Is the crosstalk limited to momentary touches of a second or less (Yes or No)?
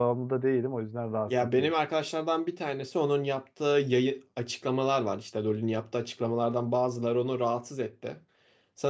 Yes